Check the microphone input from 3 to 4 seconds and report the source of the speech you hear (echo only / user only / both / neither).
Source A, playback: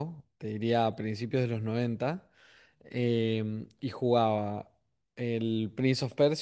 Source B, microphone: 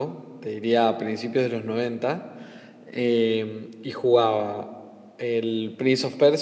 echo only